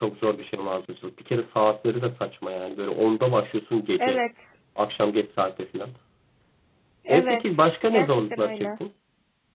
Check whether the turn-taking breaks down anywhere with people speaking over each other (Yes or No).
Yes